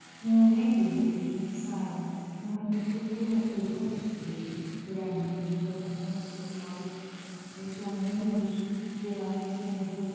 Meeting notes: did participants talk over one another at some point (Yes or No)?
No